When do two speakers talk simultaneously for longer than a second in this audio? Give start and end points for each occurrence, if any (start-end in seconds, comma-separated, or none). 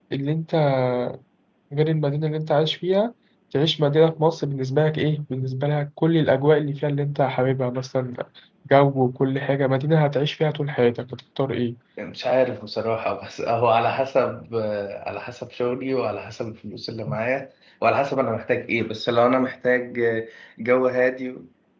none